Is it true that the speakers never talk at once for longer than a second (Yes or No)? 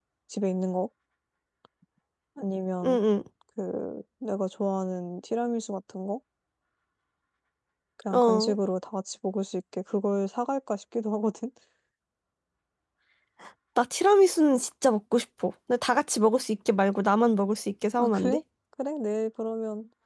Yes